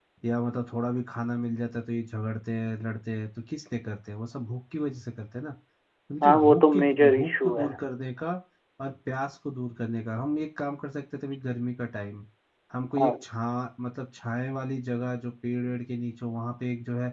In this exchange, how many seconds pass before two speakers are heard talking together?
6 s

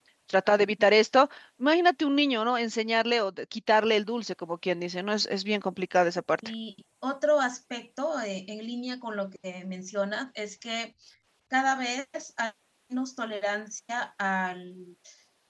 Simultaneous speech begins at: none

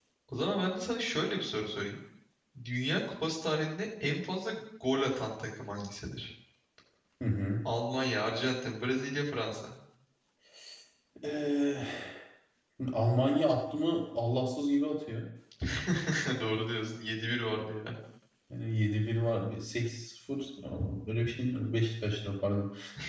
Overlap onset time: none

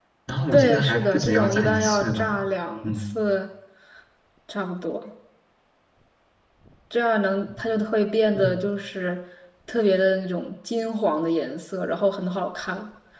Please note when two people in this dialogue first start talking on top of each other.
1 s

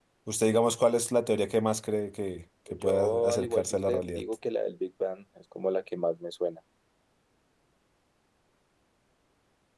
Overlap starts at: 3 s

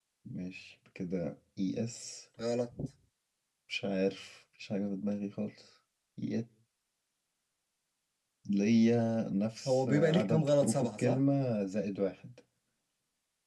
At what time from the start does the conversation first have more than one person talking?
10 s

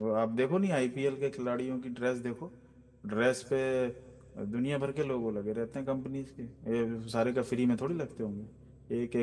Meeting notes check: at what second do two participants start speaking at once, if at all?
none

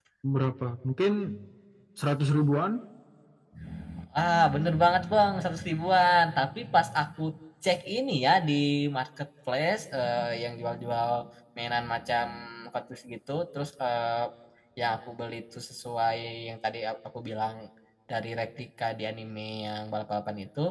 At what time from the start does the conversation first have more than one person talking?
none

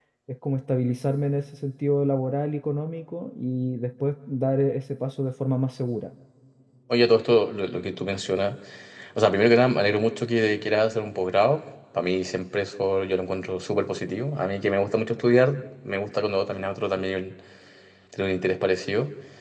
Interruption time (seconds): none

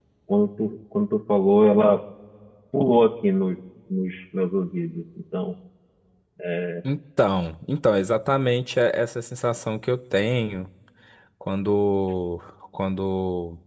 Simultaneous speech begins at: none

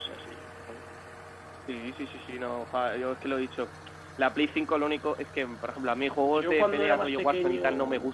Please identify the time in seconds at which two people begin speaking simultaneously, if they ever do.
6 s

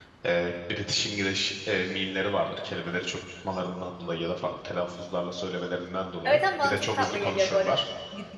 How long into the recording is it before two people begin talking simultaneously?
6 s

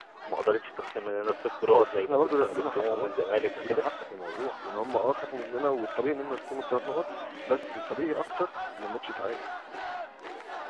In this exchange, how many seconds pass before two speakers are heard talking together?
2 s

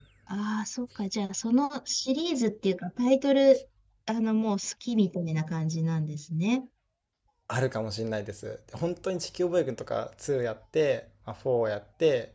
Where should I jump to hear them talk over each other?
none

